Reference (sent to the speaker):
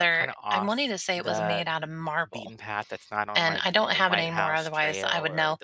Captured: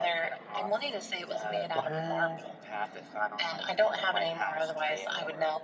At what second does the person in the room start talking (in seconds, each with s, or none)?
1.7 s